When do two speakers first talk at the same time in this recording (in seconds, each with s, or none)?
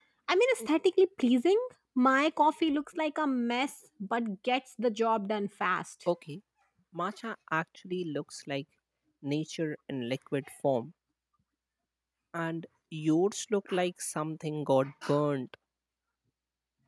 none